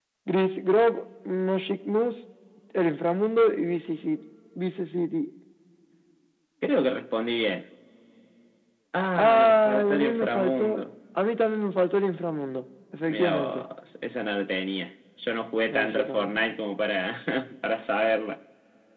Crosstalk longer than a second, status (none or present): present